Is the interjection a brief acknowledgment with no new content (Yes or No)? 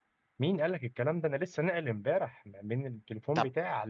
Yes